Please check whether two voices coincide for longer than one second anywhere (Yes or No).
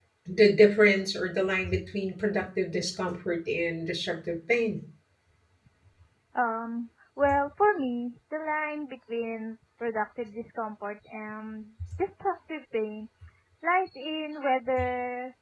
No